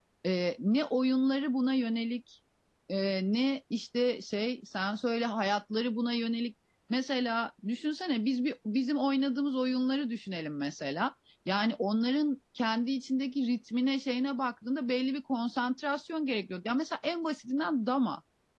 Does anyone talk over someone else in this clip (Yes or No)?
No